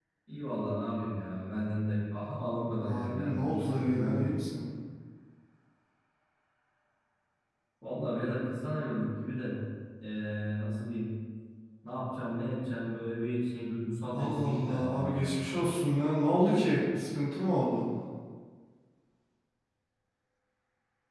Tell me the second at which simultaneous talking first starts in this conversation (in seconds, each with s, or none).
2.9 s